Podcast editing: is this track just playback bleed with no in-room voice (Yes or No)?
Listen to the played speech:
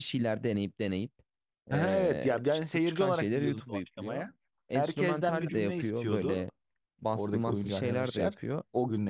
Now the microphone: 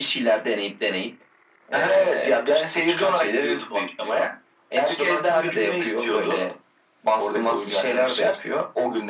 Yes